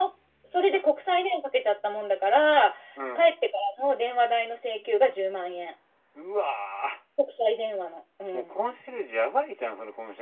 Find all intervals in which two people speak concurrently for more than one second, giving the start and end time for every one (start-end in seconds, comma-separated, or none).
none